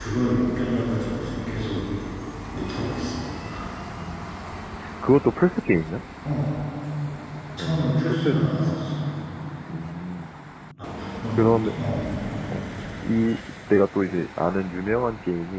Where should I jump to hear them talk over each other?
7.6 s

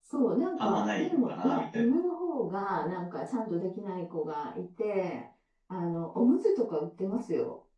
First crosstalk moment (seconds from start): 0.6 s

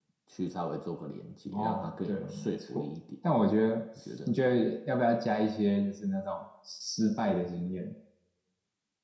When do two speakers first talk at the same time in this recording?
1.5 s

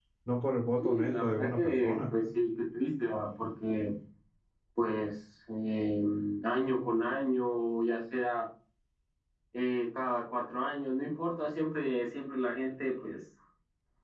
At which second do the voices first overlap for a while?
0.8 s

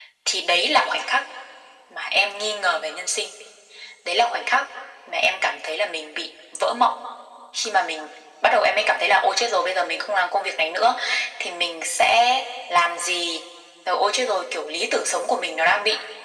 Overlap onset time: none

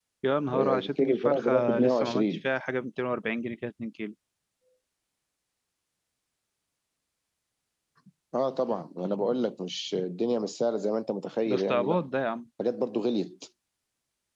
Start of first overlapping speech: 0.5 s

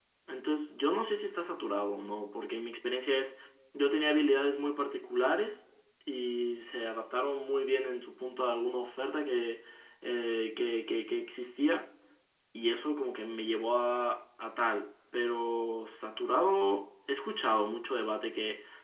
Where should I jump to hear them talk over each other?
none

